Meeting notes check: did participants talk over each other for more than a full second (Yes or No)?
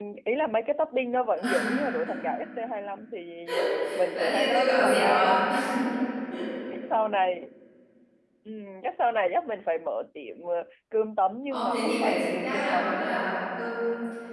Yes